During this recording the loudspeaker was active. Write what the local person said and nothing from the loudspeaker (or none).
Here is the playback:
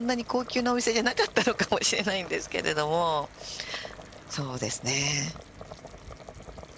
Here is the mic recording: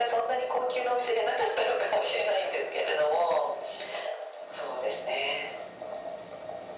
none